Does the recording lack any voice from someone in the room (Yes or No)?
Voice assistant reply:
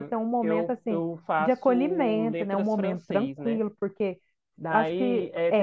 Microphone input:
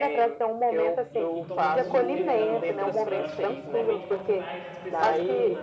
No